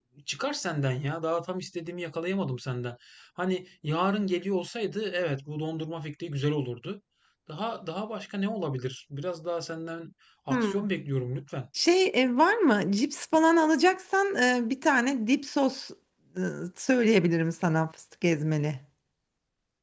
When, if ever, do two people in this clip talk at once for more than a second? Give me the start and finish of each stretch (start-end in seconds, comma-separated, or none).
none